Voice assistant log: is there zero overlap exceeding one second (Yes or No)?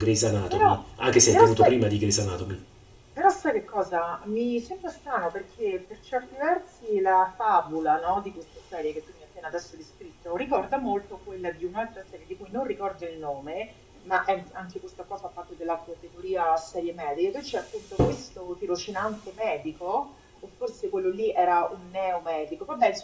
Yes